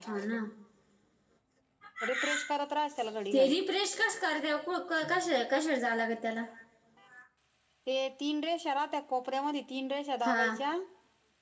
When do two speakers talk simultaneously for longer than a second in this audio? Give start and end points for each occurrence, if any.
none

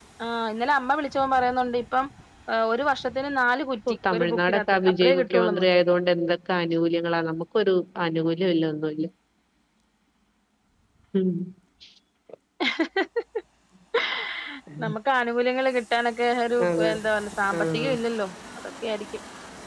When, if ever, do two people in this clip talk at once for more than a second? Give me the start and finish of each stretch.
4.1-5.6

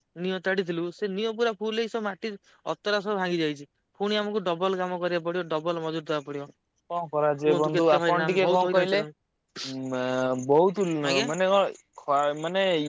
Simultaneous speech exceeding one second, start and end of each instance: 7.5-9.0

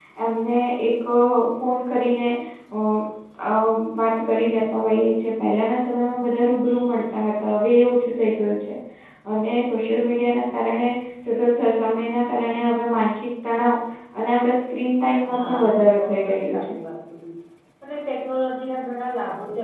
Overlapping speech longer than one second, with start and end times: 15.3-16.8

